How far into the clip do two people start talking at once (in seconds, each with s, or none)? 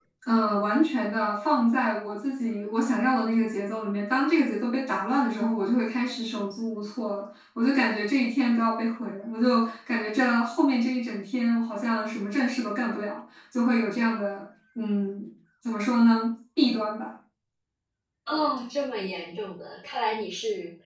none